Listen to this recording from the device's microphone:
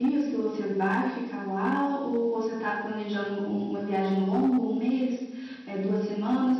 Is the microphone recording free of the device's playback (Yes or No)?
Yes